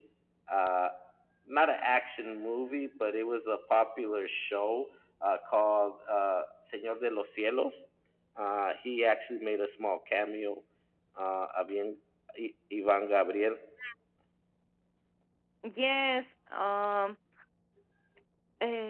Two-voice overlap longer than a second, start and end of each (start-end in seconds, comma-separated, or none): none